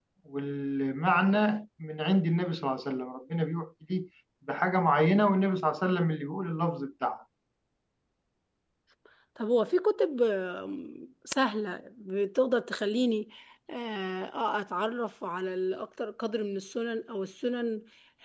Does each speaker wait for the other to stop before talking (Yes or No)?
Yes